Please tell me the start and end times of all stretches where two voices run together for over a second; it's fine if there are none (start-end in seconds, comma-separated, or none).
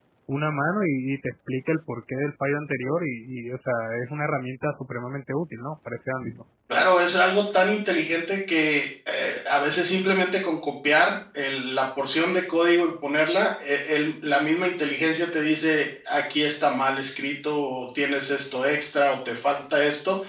none